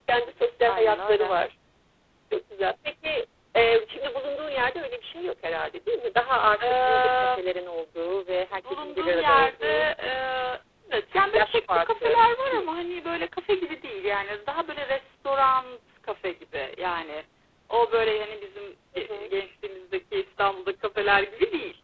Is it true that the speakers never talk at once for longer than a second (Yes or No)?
No